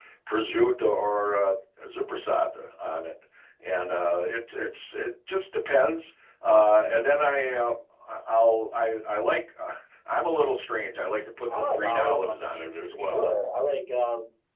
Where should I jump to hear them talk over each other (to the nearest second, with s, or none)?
11 s